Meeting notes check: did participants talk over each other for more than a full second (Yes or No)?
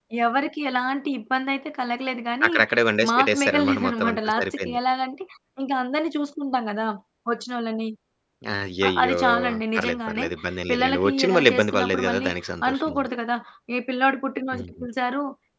Yes